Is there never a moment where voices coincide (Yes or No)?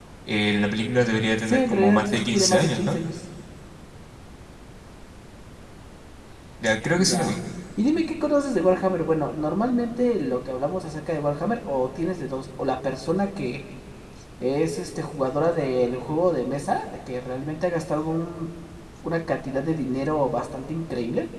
No